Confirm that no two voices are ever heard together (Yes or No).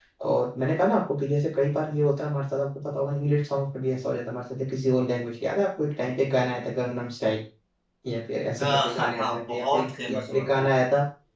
No